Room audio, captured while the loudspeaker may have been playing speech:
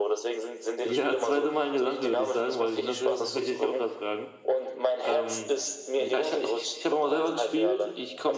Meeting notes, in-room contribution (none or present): present